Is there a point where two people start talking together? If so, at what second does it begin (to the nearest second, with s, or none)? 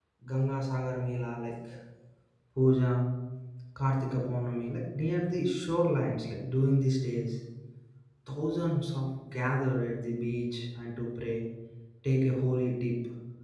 none